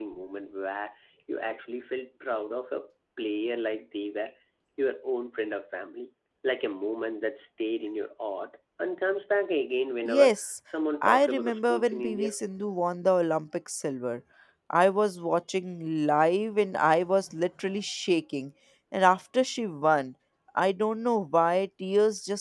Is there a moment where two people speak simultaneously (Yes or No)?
Yes